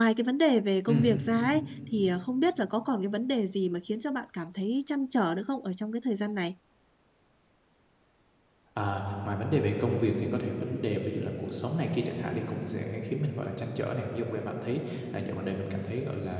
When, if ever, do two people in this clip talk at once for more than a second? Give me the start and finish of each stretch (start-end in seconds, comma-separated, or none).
none